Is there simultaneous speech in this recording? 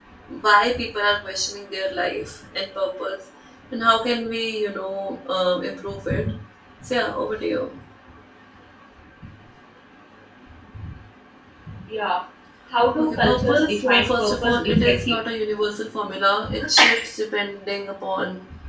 Yes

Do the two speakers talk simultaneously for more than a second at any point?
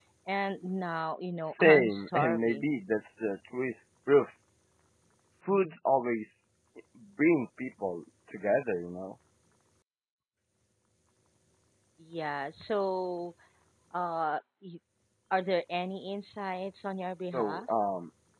Yes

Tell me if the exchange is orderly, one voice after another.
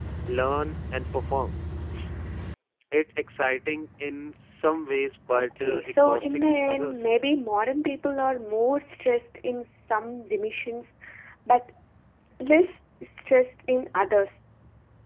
No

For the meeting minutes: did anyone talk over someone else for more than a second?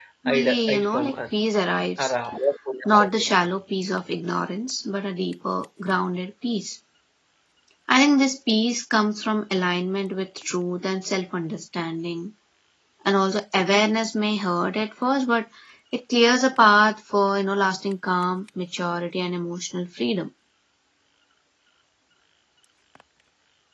Yes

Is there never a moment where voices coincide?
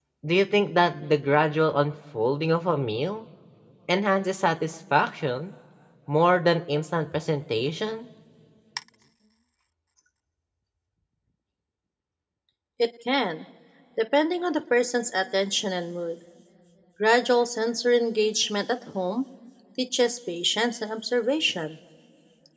Yes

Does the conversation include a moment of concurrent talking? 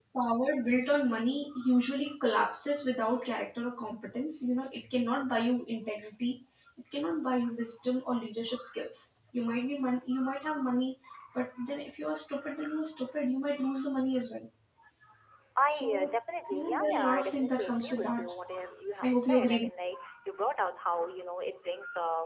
Yes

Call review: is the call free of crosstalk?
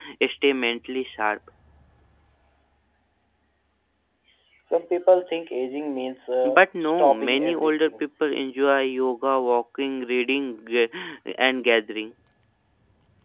No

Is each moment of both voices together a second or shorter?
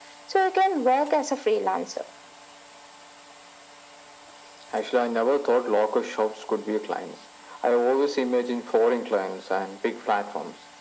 Yes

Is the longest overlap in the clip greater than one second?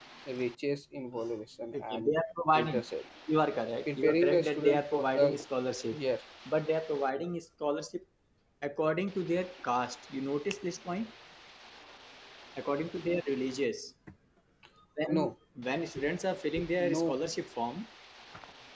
Yes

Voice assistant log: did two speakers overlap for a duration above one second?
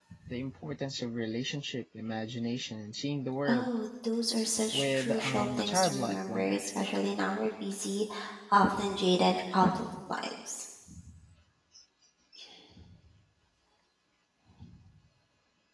Yes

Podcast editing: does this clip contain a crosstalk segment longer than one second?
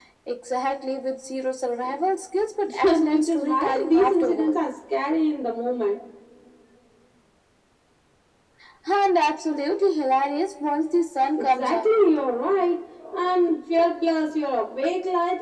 Yes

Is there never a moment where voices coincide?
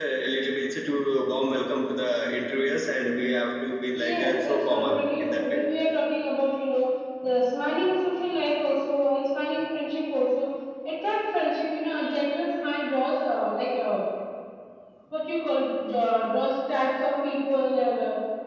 No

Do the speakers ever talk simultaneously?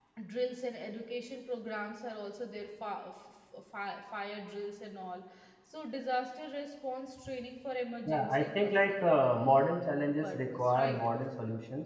Yes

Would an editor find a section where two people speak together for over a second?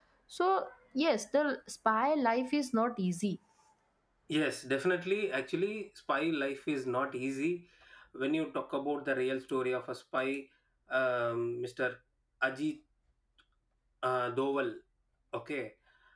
No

